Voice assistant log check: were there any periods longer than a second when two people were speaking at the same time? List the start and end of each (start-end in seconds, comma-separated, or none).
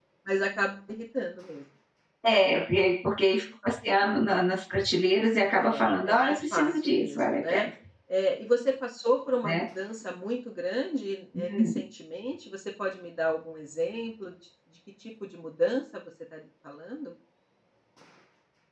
5.5-7.7